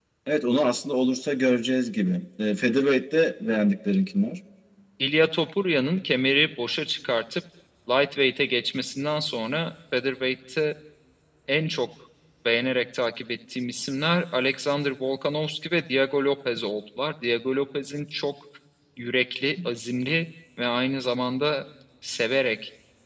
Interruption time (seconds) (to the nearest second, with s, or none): none